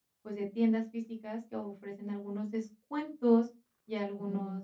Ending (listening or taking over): listening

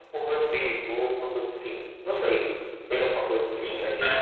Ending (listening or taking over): taking over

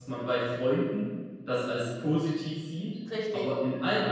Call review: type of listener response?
listening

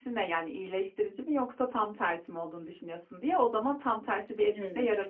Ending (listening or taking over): taking over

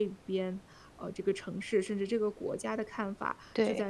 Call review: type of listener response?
listening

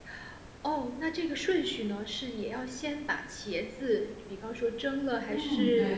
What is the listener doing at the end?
taking over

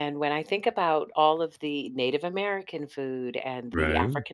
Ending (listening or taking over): listening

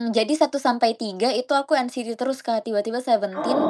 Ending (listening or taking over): listening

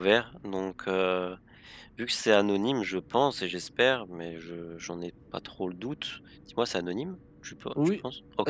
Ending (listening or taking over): taking over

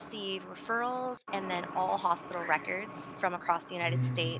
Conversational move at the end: listening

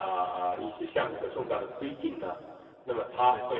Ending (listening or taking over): listening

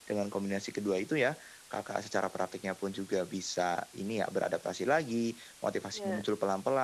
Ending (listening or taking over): listening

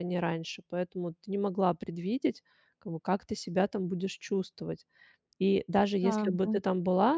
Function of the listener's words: listening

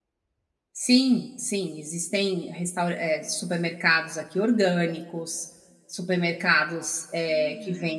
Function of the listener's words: listening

